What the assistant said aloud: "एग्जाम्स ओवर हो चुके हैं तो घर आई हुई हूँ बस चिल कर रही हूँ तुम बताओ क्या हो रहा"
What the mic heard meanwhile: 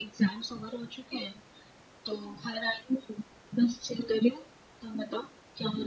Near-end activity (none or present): none